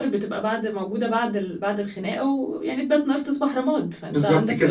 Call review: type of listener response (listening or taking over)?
taking over